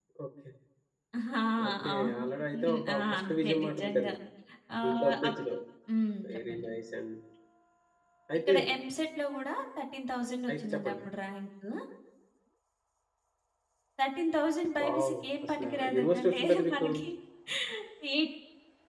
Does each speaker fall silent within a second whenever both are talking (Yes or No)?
No